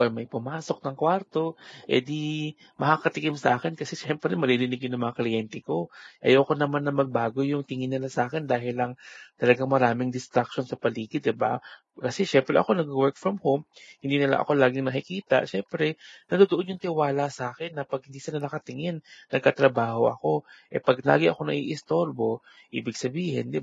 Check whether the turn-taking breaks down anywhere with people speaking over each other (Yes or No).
No